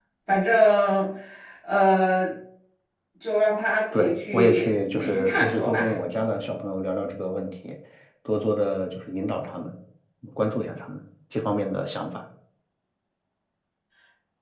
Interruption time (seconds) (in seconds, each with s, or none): 3.9 s